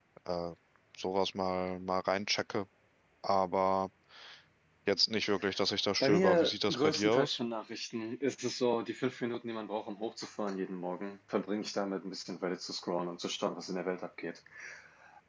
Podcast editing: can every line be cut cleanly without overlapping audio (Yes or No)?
No